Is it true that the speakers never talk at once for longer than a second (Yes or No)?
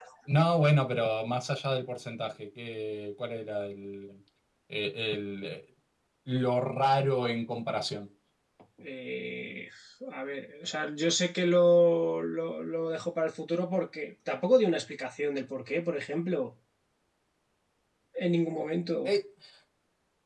Yes